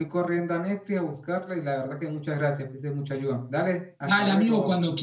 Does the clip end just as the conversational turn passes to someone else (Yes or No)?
Yes